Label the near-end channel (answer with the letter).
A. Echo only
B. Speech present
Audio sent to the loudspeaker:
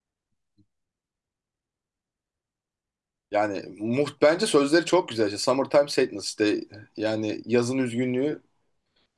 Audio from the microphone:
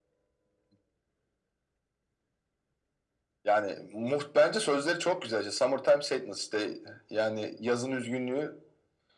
A